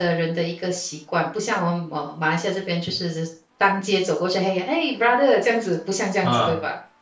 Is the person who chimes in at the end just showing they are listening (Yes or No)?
No